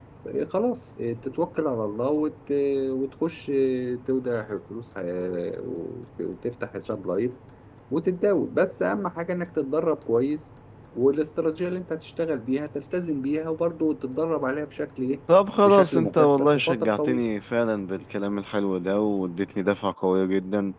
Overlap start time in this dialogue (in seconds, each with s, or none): 15.6 s